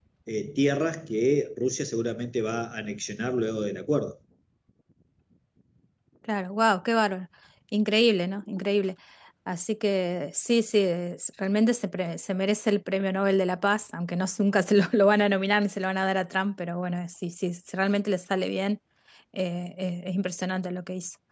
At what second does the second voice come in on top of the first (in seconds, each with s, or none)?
none